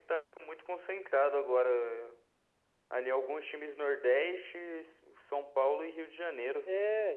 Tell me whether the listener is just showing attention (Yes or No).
No